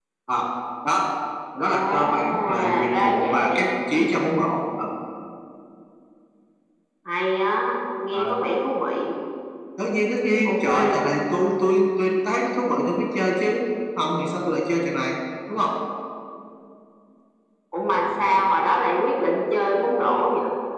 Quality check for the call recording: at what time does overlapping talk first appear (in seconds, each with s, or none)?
1.7 s